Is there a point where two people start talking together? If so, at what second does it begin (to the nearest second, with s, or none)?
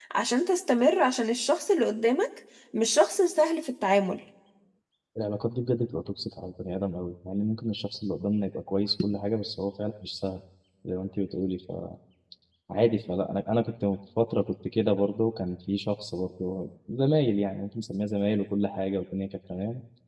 none